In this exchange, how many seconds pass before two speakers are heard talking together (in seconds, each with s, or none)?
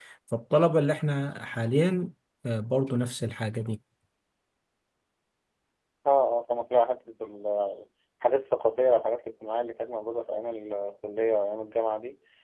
none